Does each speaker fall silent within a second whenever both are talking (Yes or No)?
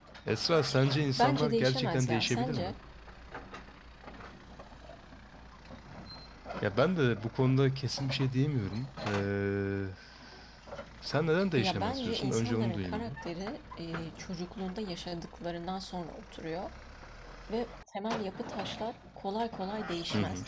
No